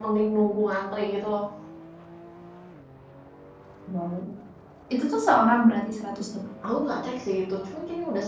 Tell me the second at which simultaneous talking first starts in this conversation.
none

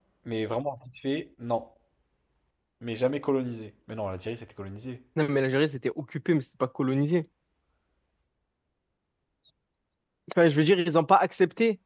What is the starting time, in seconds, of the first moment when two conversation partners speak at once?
none

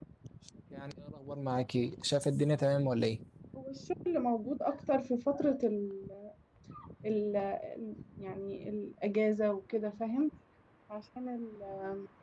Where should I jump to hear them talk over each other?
none

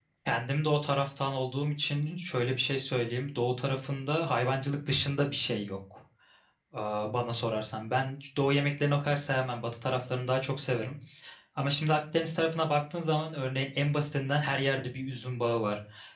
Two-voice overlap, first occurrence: none

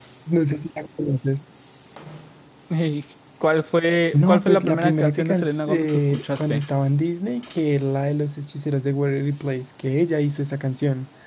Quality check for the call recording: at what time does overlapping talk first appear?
4 s

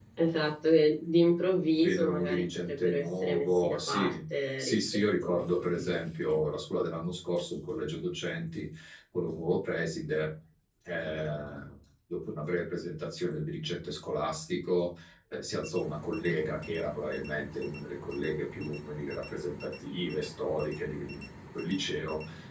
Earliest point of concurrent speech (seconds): 2 s

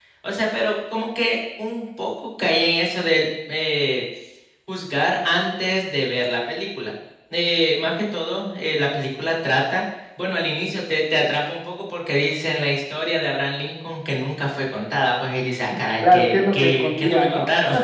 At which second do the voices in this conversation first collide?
16 s

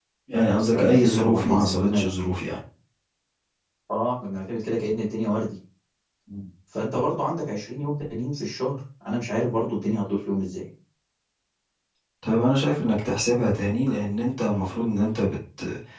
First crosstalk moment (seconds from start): 1 s

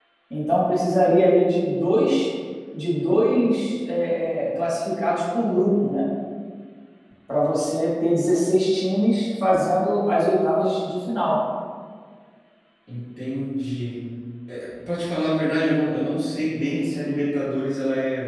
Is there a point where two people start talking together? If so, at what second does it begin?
none

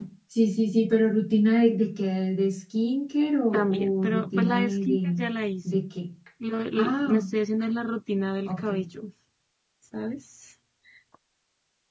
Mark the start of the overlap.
4 s

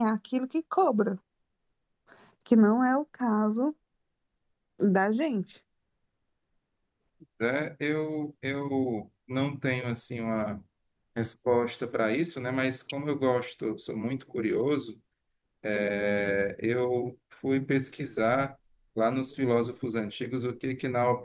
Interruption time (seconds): none

